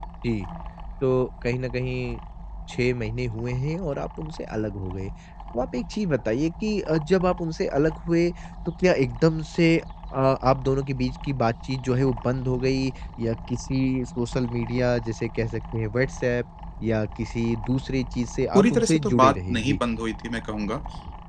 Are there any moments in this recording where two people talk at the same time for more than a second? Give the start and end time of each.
18.5-19.8

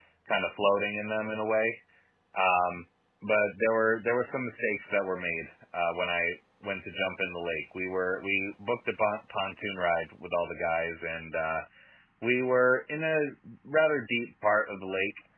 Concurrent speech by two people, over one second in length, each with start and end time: none

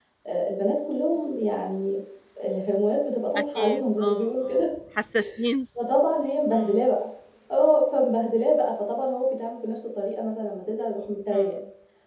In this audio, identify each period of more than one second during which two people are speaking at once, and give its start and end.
3.4-4.6

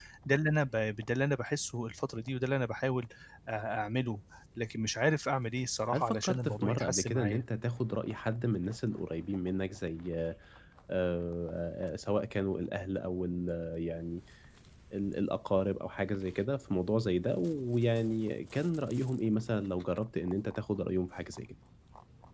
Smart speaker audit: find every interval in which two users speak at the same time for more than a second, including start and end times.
5.9-7.4

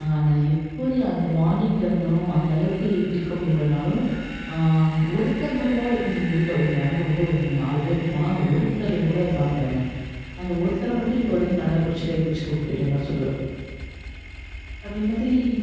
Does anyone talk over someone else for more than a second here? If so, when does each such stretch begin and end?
none

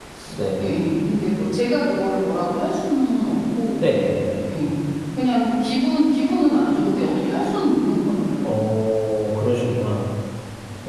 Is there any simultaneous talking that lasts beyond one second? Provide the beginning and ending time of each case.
none

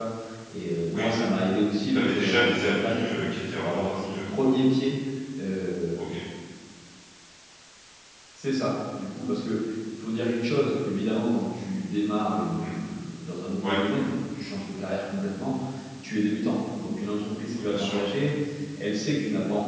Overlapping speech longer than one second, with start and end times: 1.9-4.4

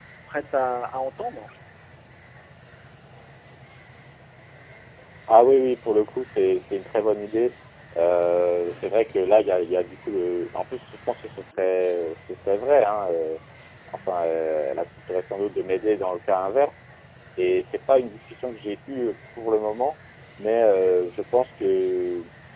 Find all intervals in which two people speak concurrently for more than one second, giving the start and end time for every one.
none

